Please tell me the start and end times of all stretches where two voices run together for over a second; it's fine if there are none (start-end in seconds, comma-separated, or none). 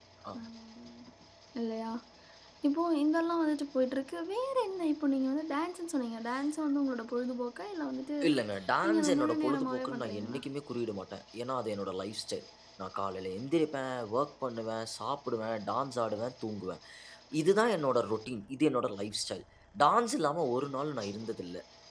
8.8-10.4